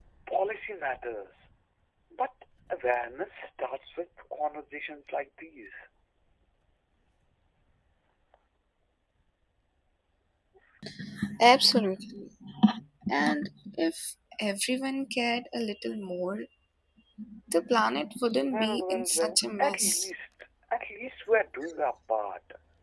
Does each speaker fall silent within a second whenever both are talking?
No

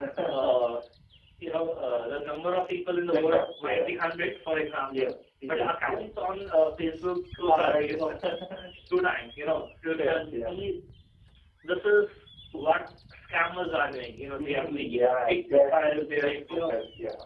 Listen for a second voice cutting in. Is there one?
Yes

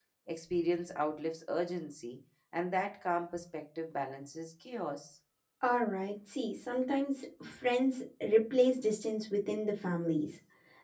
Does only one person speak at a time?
Yes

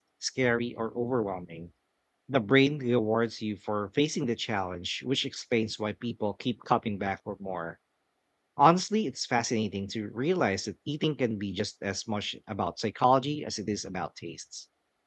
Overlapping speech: No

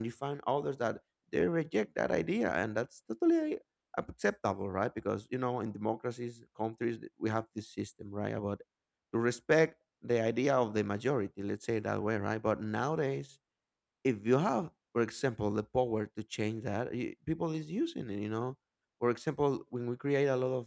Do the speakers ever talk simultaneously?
No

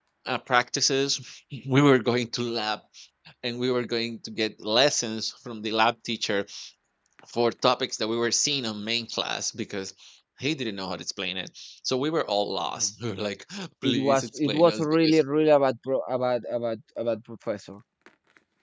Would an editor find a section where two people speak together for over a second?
Yes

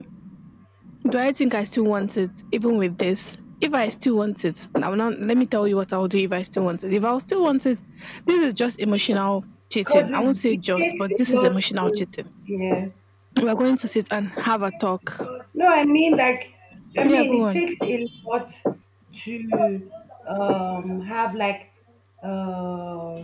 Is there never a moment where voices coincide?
No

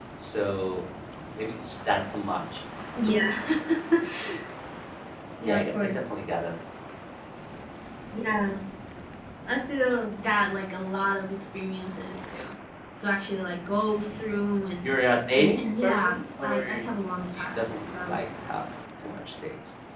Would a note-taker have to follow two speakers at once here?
Yes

